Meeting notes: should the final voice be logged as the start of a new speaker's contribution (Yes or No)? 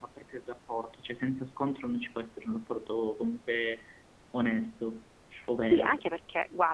Yes